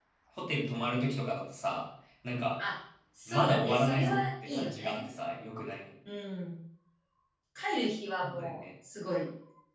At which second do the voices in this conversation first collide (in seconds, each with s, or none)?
3.3 s